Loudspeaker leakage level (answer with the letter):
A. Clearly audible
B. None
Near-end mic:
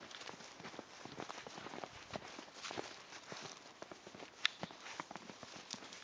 B